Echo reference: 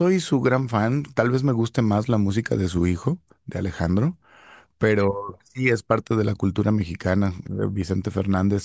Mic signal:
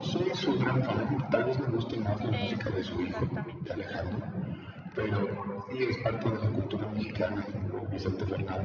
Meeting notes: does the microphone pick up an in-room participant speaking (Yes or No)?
Yes